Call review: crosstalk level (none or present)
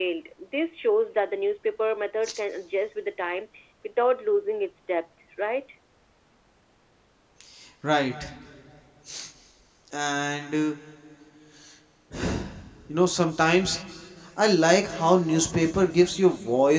none